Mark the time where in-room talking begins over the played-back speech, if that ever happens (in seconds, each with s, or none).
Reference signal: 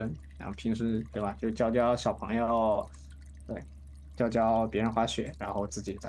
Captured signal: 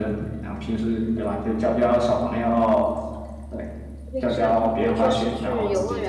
4.1 s